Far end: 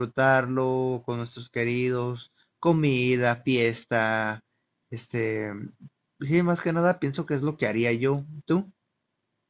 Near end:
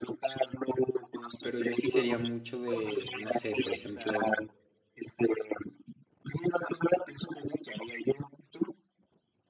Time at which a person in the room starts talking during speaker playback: 1 s

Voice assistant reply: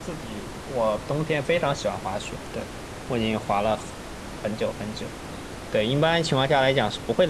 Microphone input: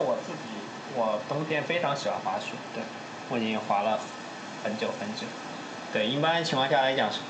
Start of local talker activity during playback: none

